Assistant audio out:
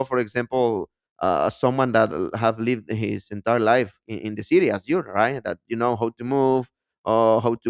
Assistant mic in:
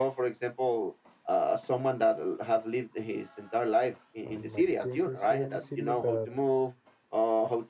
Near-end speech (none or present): present